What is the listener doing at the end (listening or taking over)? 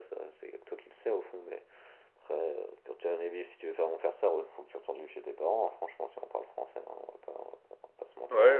taking over